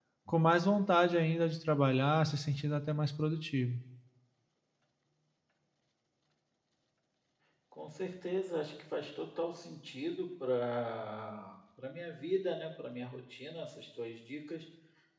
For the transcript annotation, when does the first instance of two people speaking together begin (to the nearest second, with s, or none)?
none